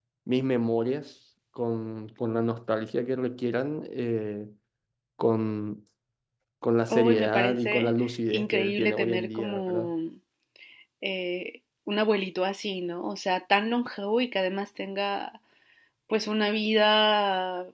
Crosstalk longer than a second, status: present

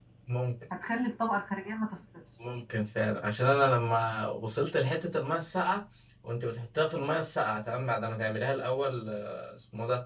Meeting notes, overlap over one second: none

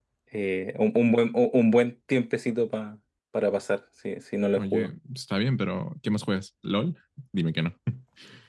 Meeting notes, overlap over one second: none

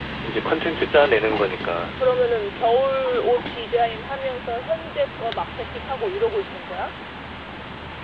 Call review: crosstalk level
none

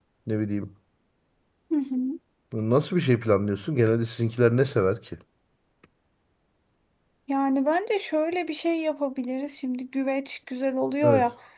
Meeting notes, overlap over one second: none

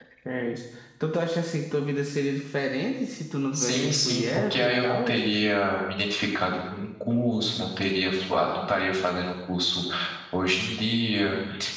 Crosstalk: present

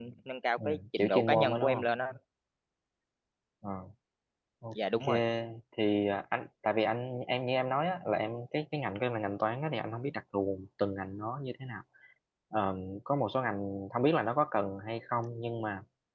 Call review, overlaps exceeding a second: present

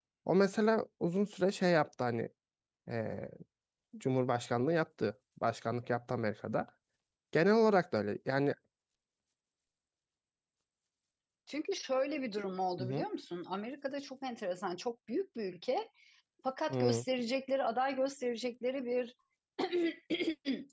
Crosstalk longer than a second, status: none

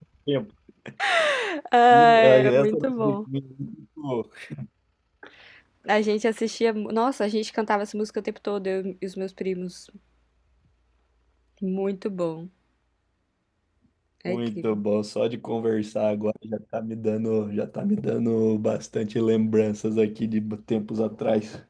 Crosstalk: present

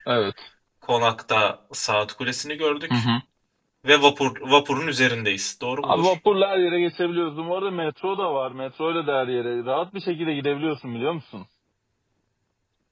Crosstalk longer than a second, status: none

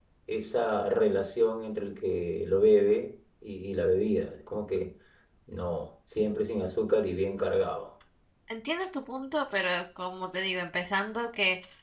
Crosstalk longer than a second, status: none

